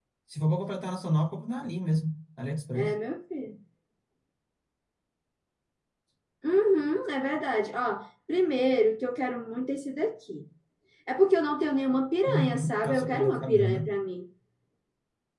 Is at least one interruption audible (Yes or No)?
Yes